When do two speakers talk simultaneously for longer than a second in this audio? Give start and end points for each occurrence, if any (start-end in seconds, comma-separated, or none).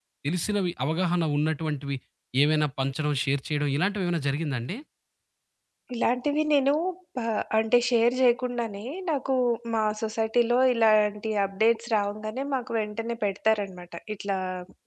none